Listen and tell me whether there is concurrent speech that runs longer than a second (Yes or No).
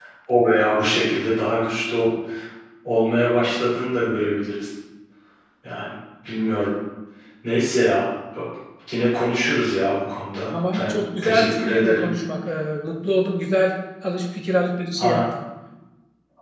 Yes